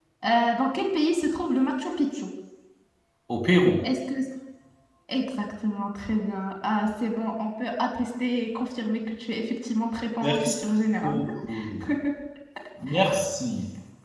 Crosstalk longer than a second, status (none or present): none